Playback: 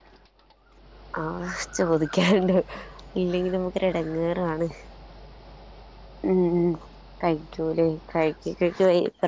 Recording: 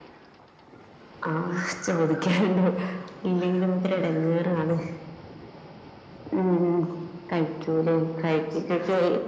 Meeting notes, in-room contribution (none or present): none